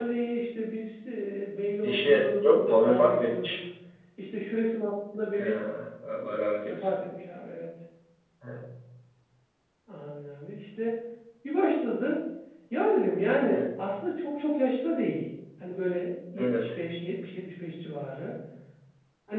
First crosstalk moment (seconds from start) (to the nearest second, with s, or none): 2 s